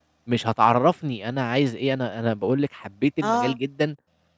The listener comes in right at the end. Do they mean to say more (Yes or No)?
No